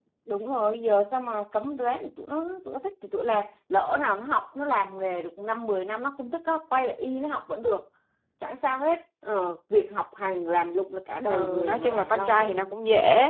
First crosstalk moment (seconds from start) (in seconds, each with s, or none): 11.3 s